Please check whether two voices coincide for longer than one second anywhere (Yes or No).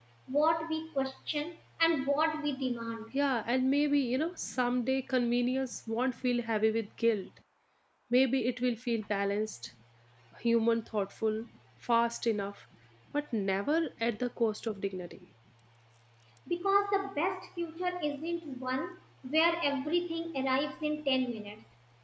No